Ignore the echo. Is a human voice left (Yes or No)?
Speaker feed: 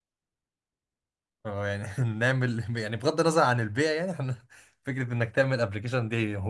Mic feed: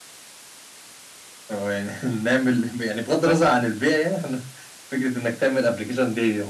Yes